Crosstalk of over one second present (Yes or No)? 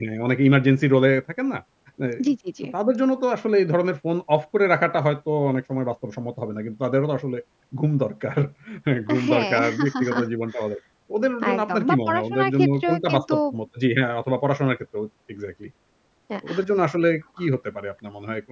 Yes